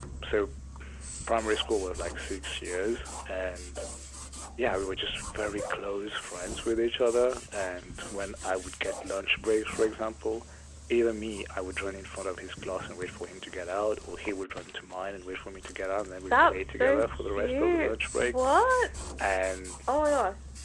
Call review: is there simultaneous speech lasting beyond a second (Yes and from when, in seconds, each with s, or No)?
Yes, from 16.3 s